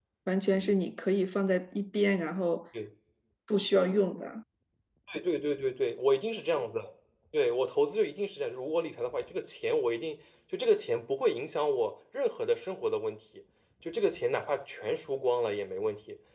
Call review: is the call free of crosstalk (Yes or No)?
Yes